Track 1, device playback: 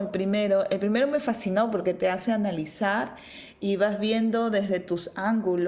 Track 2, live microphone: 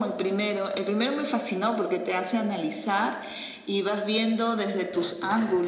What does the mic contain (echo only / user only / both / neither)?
echo only